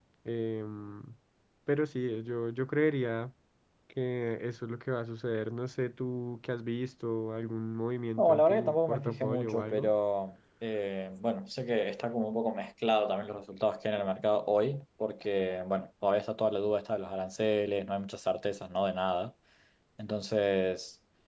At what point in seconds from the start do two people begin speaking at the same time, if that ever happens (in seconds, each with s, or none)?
8.2 s